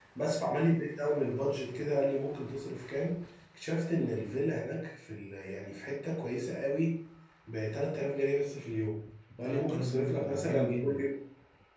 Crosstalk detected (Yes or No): Yes